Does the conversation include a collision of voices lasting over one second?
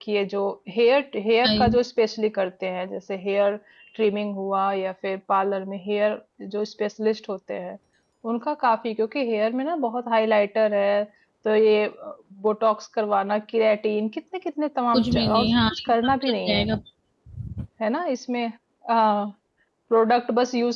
Yes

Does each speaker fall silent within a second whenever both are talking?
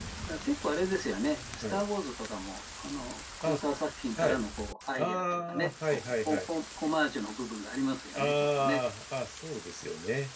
No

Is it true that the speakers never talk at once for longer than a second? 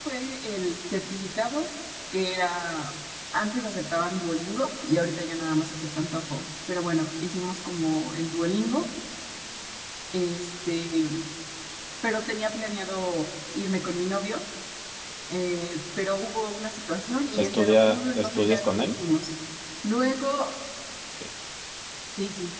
No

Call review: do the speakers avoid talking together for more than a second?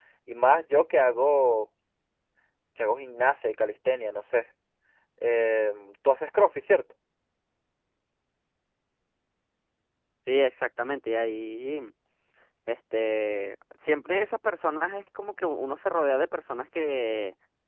Yes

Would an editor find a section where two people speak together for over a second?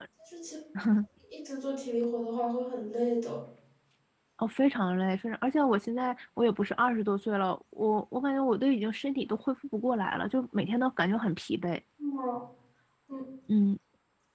No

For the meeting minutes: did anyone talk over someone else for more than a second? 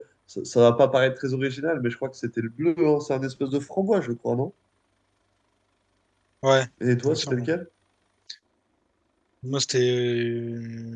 No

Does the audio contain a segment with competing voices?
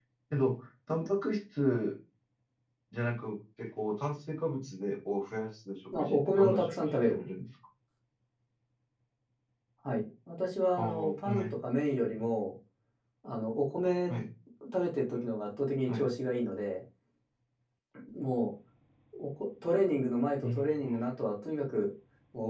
Yes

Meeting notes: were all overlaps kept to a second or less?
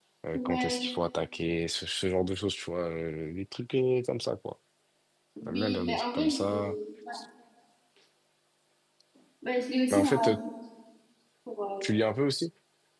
No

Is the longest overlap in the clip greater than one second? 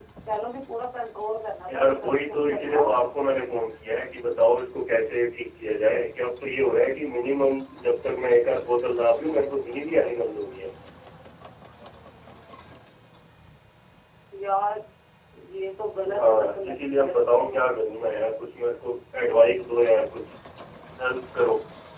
Yes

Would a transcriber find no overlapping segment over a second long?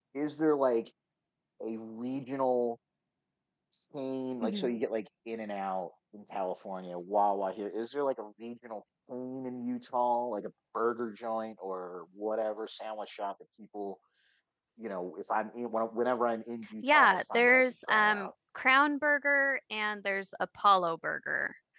No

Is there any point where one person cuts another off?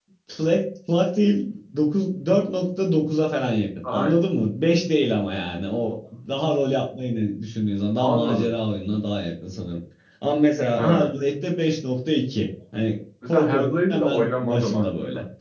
Yes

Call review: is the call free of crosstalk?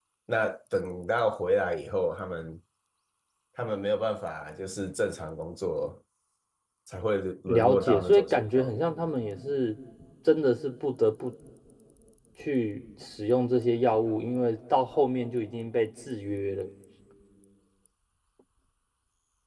No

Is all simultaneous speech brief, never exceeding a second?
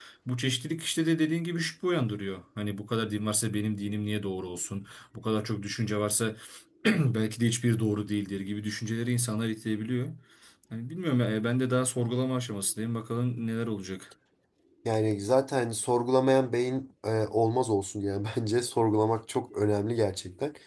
Yes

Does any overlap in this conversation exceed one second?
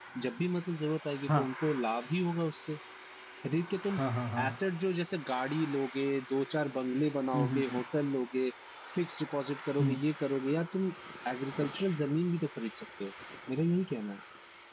No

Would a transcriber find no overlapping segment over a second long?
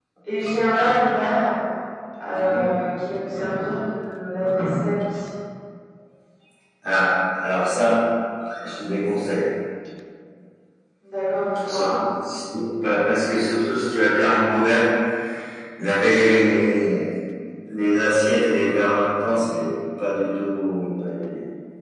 Yes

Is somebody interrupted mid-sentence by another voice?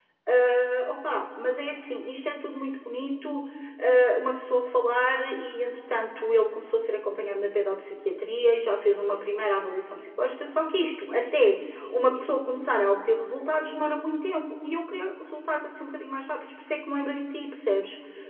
No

